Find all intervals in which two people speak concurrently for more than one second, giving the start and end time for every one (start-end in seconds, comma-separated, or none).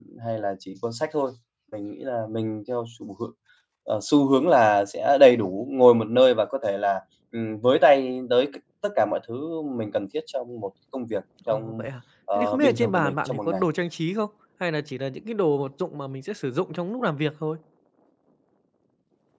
12.4-13.6